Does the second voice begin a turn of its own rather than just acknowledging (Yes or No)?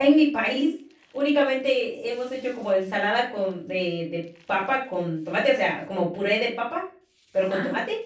No